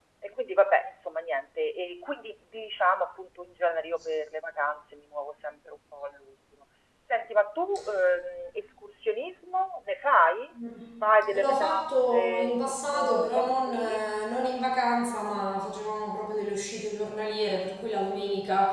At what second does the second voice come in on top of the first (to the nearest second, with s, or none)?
11 s